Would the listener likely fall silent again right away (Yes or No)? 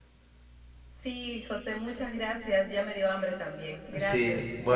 No